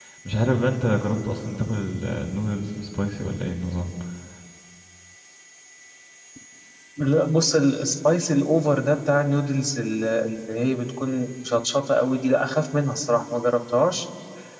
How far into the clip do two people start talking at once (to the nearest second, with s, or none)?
none